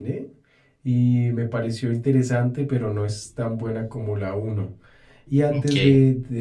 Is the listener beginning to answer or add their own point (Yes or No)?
No